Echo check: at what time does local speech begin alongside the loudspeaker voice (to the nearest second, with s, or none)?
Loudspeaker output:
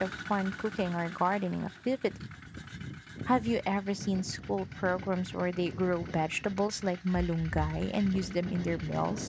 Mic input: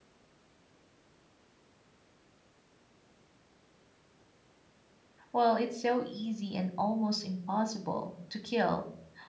5 s